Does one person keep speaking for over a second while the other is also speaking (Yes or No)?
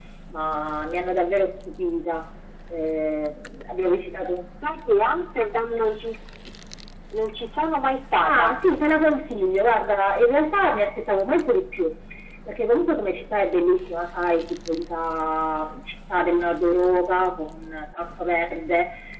No